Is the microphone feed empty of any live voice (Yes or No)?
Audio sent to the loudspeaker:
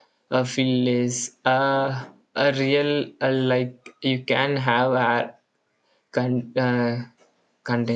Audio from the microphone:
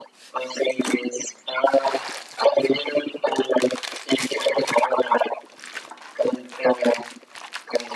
Yes